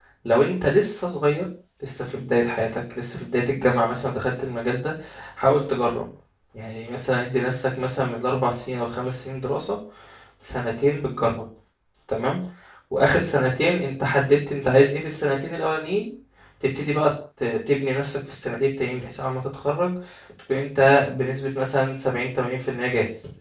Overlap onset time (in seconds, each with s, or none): none